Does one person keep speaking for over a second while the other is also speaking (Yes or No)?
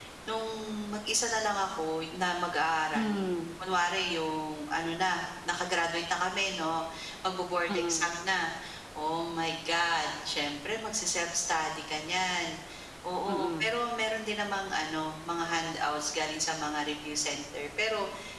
No